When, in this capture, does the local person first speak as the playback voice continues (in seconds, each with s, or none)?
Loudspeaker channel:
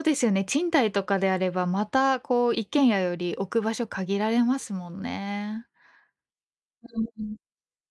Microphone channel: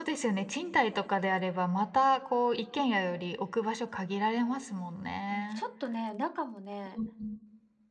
5.3 s